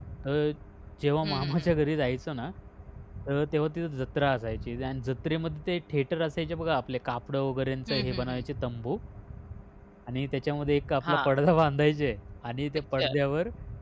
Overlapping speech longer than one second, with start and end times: none

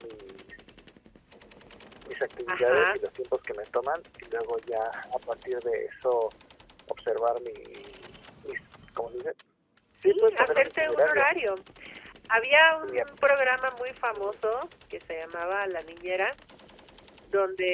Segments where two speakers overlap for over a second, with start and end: 10.0-11.3

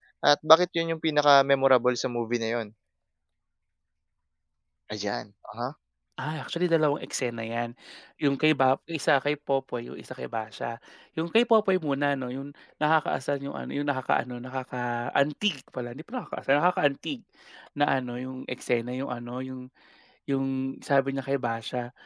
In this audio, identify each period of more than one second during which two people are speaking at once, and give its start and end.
none

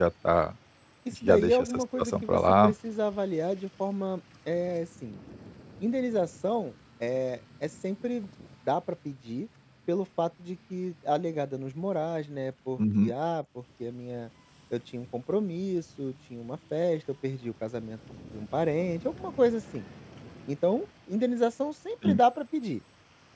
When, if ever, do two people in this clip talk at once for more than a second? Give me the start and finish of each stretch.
1.2-2.7

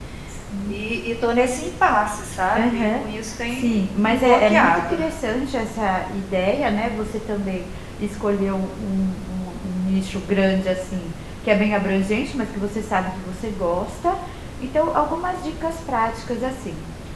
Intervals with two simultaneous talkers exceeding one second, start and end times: 3.5-5.0

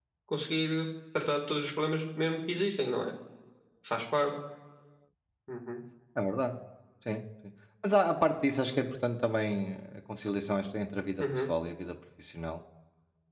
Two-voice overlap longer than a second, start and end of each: none

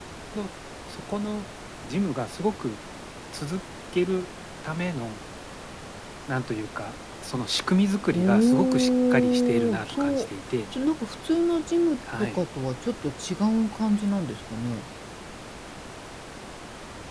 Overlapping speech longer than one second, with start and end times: 8.1-10.3

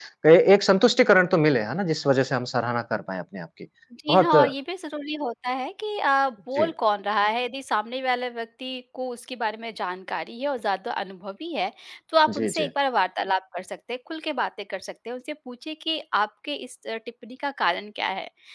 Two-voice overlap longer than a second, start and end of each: none

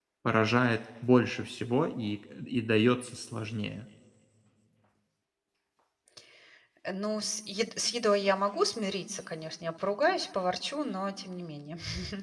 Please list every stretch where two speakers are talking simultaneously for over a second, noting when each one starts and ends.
none

